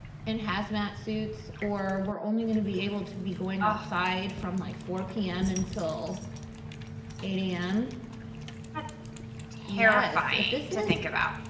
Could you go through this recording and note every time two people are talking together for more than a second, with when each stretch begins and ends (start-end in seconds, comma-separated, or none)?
9.8-11.0